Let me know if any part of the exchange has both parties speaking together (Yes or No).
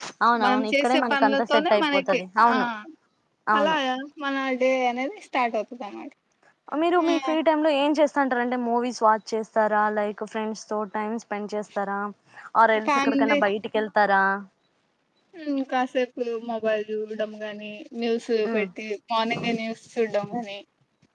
Yes